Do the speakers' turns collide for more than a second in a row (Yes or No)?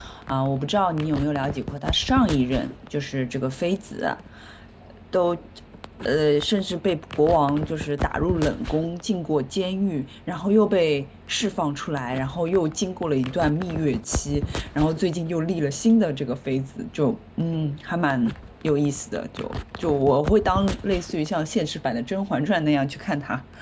No